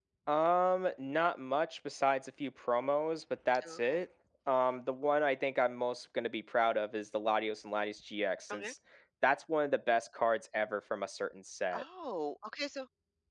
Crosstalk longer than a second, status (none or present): none